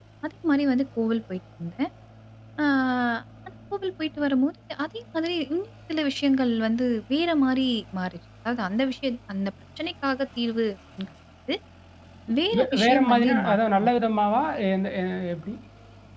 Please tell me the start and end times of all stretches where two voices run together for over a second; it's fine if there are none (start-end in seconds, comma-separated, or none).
12.6-13.9